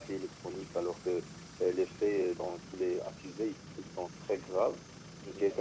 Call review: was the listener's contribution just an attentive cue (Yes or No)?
Yes